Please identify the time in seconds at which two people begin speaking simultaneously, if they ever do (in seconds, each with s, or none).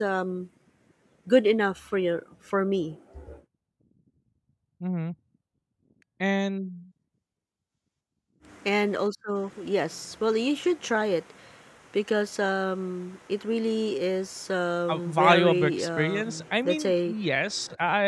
14.9 s